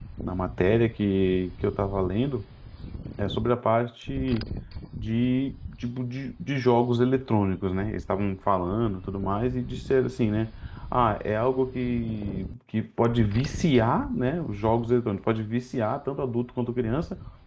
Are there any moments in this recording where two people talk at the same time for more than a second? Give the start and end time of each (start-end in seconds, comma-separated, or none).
none